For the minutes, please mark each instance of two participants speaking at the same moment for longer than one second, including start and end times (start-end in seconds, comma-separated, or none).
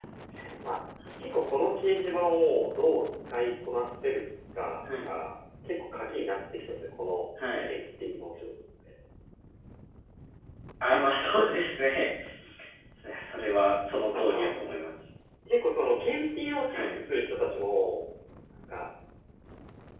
none